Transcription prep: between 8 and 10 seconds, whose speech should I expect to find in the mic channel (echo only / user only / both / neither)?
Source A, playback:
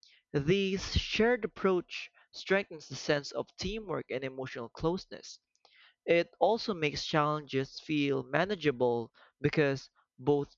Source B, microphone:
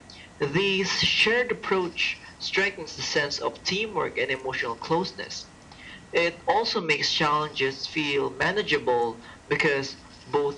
echo only